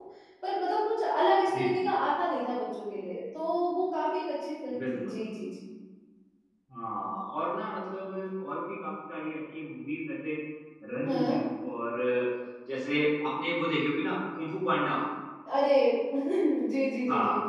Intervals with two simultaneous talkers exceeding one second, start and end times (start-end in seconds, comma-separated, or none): none